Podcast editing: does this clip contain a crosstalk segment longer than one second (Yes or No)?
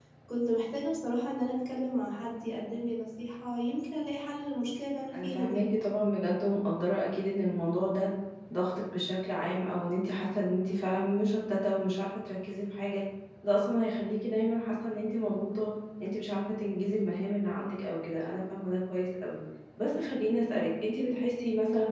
No